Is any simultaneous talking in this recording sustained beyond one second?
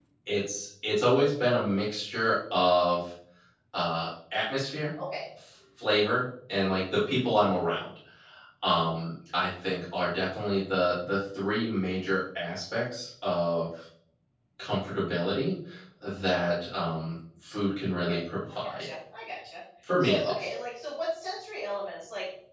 No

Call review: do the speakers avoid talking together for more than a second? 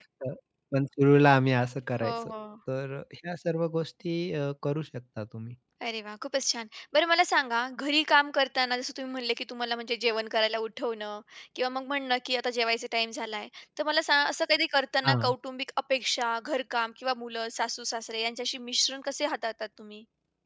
Yes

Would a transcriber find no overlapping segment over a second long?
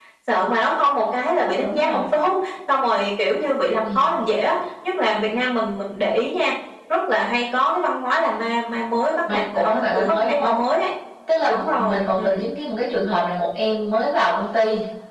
No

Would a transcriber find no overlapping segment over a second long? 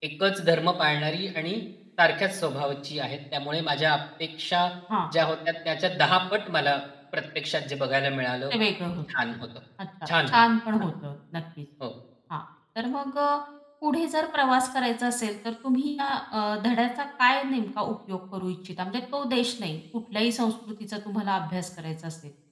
Yes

